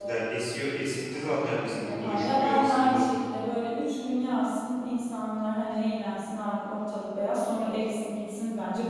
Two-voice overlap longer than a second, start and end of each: 1.8-3.0

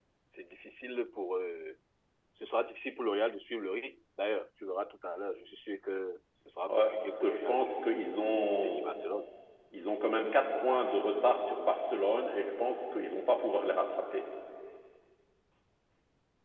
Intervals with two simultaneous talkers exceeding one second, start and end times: 6.7-7.9

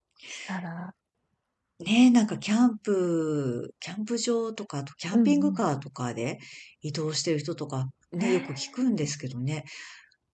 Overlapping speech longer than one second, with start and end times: none

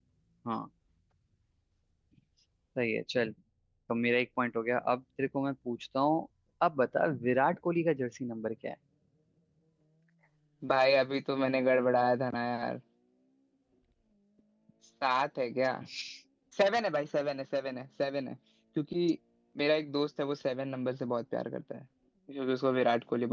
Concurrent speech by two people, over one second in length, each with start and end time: none

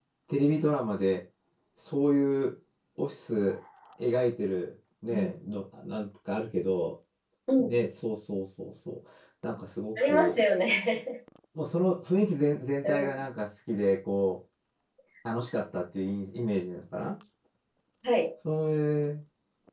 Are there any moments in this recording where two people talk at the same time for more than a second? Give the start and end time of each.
none

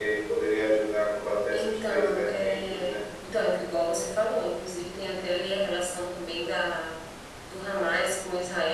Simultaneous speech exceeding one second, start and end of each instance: 1.5-3.0

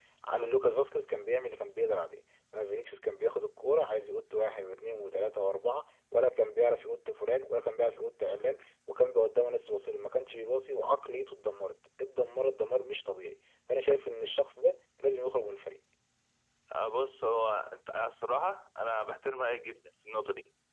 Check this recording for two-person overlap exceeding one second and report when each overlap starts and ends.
none

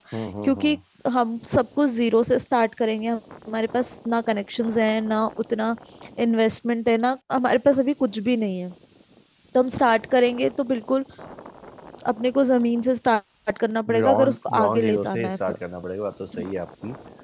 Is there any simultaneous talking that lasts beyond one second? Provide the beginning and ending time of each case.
13.9-15.6

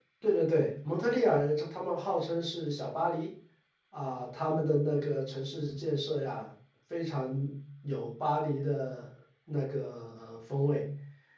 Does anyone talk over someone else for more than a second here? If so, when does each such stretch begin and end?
none

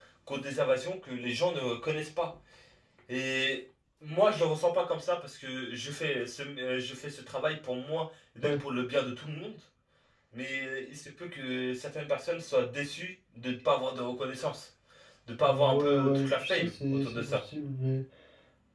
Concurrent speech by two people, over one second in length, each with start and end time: 15.4-17.4

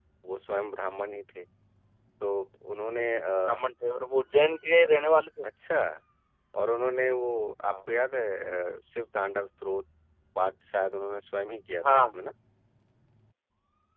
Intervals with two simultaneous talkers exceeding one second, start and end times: none

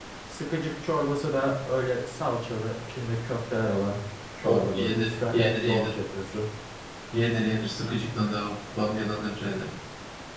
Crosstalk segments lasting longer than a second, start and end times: 4.4-5.9

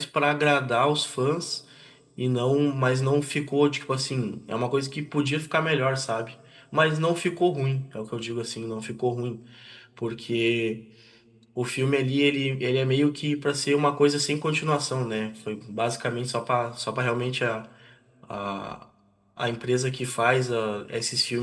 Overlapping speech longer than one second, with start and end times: none

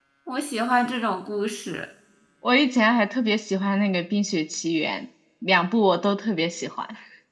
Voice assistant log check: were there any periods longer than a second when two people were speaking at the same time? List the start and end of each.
none

